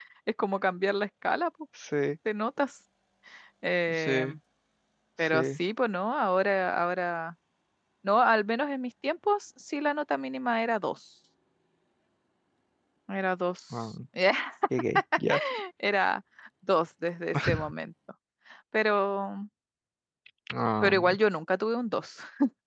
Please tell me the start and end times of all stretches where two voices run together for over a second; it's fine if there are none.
none

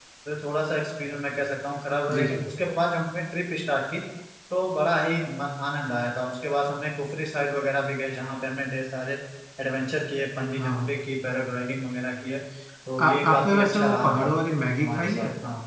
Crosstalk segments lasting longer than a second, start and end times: 13.0-14.3

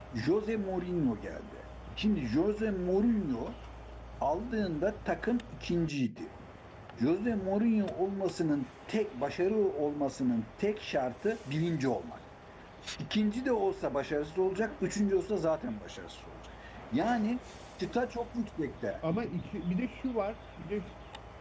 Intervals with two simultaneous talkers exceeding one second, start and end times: none

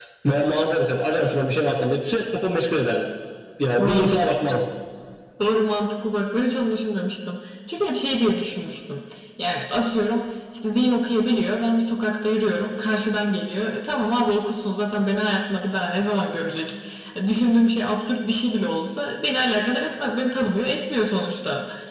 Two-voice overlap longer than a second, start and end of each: none

